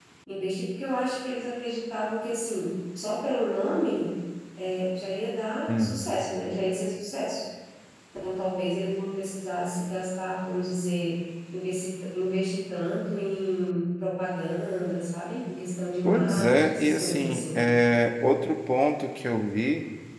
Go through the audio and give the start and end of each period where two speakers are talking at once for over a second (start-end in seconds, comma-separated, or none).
16.1-17.6